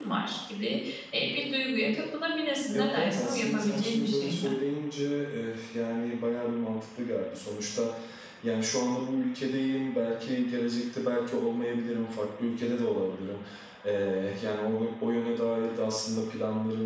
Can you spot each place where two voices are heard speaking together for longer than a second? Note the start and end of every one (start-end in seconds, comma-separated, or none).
2.7-4.5